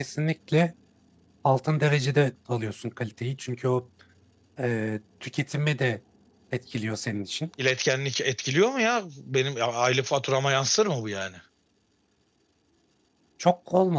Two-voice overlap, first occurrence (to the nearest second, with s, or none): none